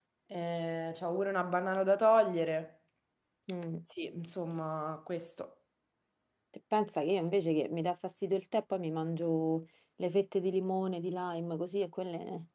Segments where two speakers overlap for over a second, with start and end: none

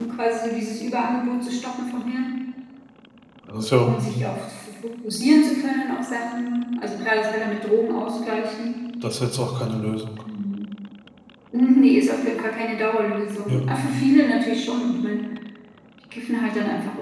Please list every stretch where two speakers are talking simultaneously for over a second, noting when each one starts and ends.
none

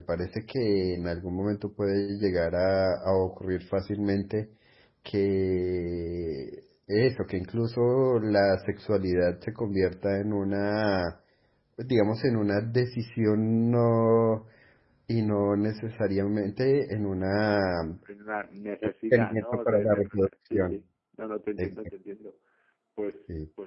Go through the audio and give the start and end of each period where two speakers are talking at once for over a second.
19.1-20.8

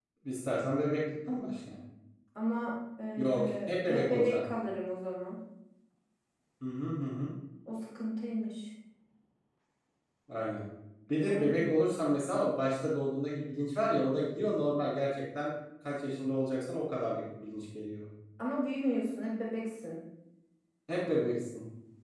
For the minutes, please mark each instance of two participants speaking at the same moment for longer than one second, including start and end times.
3.2-4.4

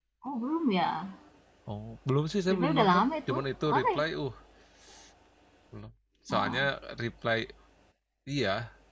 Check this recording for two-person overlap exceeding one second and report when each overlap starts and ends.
2.5-4.0

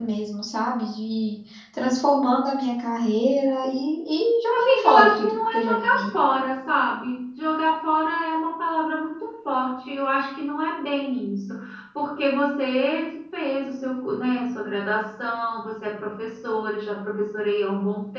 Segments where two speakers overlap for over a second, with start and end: 4.5-6.1

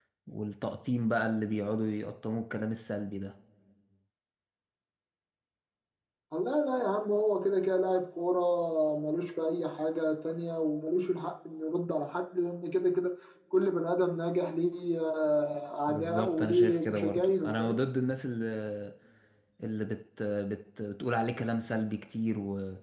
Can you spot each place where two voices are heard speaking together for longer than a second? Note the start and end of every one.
15.9-17.8

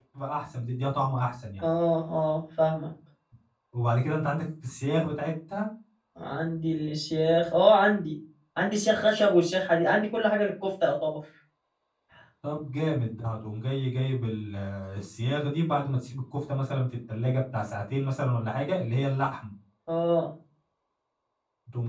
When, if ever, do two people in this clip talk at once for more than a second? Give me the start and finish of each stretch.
none

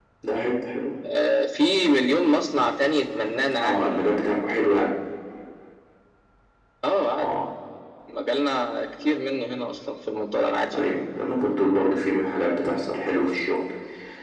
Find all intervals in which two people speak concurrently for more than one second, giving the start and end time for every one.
none

